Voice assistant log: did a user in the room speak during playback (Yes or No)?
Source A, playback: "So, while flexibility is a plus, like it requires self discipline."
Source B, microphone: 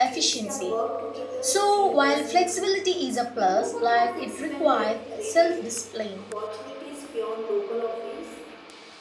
Yes